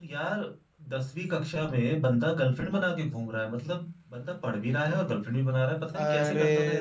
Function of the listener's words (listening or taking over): taking over